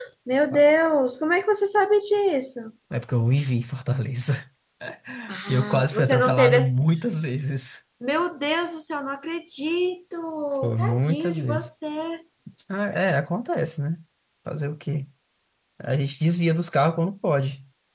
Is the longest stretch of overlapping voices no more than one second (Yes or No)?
No